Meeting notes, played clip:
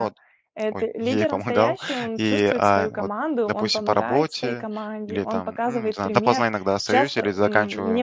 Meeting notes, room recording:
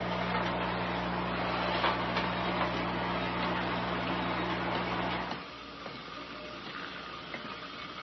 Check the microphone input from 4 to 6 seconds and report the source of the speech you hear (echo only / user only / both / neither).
neither